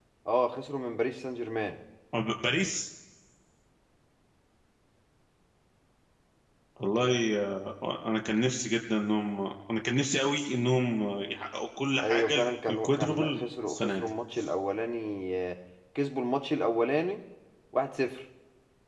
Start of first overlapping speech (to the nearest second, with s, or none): 12 s